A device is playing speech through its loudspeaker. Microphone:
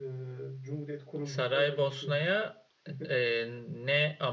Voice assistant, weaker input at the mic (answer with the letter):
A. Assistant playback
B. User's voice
A